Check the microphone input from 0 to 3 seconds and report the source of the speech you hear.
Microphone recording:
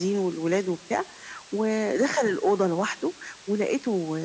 echo only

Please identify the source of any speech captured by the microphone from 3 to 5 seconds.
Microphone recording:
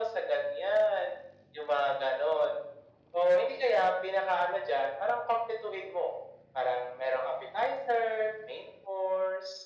echo only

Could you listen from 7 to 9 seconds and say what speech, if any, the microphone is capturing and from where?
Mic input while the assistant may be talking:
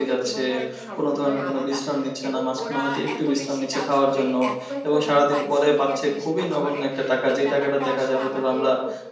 both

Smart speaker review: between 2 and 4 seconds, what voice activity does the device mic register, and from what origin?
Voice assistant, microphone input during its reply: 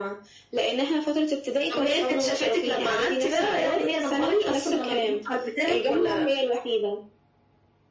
echo only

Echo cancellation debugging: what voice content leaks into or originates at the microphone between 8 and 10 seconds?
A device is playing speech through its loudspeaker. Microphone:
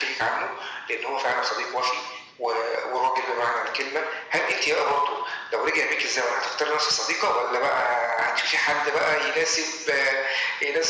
echo only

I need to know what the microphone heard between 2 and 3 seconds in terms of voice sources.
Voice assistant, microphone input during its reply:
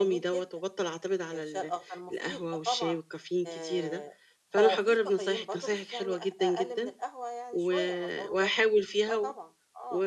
both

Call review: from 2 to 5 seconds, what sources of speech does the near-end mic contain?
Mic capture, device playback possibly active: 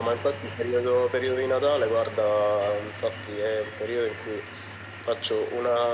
echo only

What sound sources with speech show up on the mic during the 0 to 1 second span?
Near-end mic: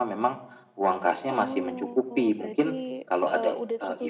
echo only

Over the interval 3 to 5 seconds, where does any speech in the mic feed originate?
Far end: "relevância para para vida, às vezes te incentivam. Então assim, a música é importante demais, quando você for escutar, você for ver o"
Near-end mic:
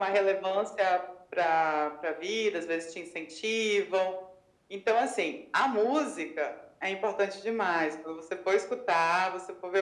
echo only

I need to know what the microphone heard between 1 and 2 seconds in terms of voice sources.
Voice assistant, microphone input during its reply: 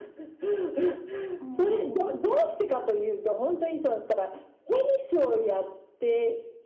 both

